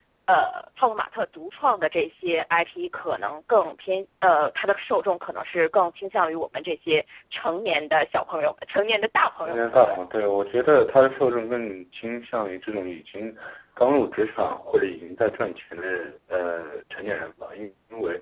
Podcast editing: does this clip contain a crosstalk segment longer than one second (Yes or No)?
No